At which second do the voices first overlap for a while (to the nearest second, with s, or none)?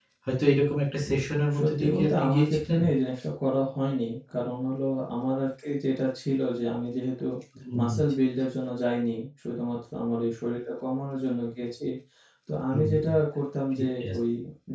2 s